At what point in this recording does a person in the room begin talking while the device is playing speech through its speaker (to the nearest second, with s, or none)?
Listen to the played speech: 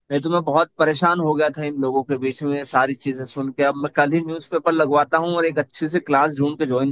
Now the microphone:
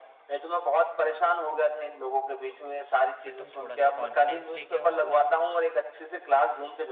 3 s